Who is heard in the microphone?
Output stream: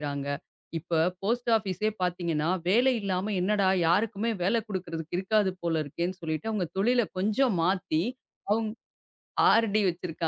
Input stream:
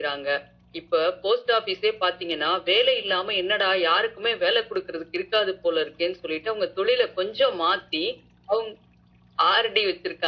echo only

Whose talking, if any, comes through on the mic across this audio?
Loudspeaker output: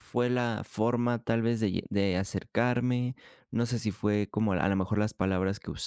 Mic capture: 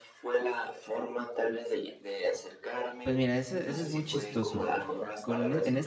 both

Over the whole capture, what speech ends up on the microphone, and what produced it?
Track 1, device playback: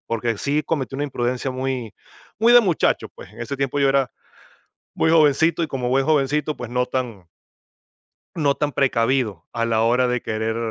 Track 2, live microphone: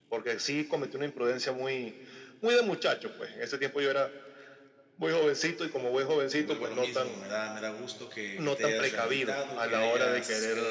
both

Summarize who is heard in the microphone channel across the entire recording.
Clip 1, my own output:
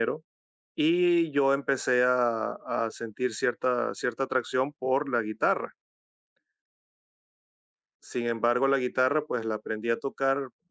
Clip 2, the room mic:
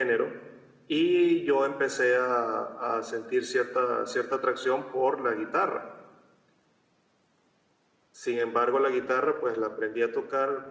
echo only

